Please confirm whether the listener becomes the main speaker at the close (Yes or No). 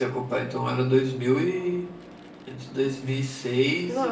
Yes